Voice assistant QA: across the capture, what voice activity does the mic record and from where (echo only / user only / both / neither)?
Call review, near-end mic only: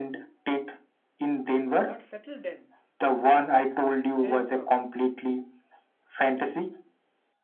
both